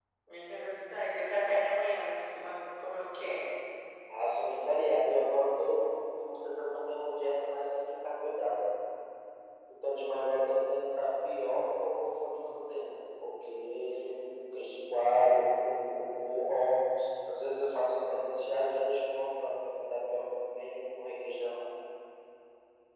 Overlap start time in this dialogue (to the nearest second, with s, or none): none